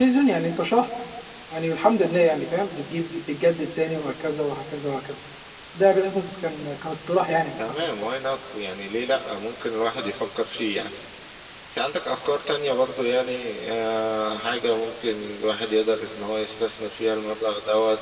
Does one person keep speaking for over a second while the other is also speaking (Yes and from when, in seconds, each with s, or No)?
No